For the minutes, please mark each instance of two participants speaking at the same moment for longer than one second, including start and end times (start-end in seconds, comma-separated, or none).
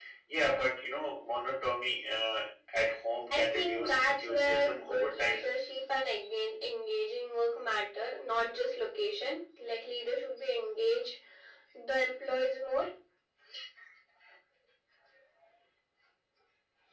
3.3-5.4